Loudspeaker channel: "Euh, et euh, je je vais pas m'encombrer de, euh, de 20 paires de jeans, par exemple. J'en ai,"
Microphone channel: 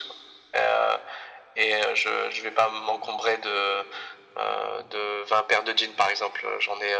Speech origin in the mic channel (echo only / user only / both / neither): echo only